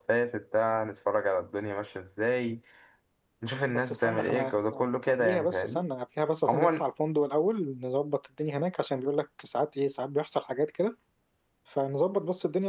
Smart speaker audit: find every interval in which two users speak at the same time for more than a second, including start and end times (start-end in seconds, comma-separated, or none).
3.7-5.8